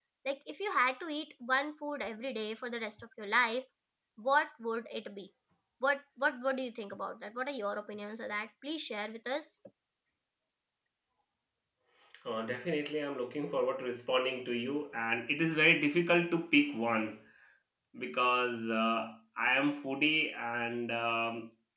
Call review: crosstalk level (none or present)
none